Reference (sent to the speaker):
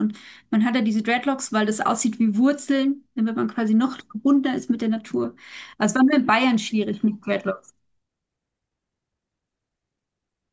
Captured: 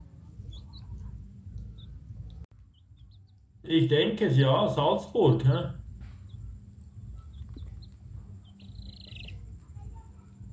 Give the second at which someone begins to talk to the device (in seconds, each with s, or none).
3.6 s